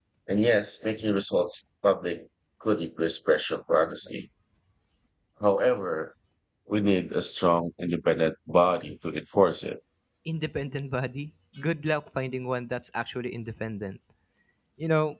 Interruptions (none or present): none